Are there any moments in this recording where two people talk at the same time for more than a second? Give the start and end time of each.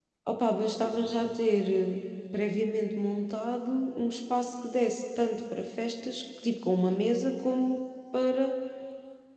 none

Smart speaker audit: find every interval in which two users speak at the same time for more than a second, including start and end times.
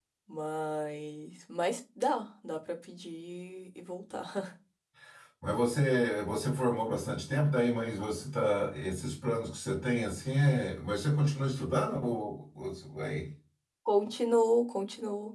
none

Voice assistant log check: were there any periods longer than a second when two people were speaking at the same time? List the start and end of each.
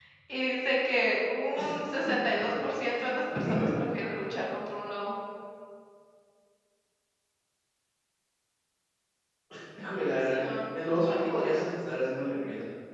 10.3-11.6

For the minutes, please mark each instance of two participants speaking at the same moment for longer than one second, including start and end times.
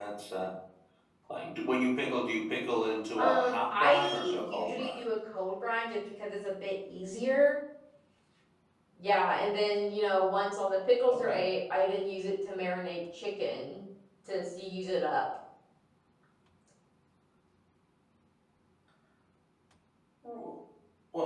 3.2-5.0

